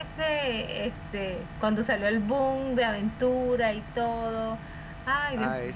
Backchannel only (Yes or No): No